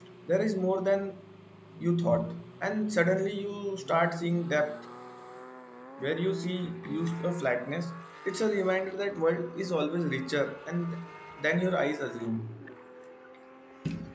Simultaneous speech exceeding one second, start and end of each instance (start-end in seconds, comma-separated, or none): none